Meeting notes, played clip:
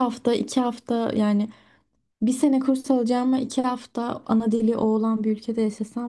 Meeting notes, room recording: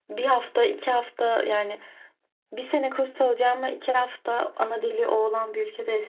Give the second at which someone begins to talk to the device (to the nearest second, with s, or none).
none